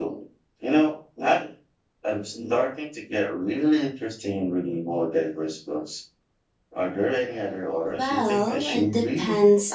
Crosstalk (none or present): present